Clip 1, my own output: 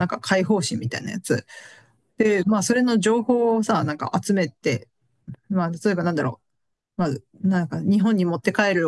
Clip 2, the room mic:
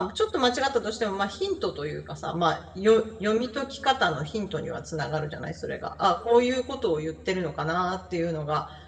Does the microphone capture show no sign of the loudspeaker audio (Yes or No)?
Yes